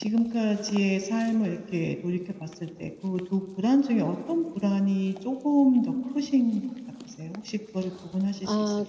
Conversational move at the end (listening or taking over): taking over